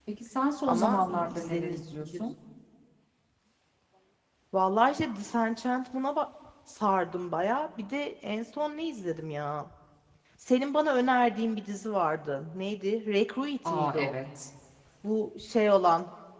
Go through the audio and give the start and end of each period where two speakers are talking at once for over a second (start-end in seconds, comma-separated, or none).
0.7-2.2